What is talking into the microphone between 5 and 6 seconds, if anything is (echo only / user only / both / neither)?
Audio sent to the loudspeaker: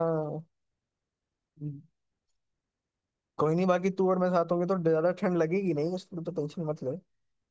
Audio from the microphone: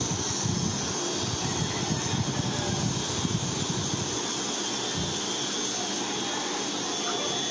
neither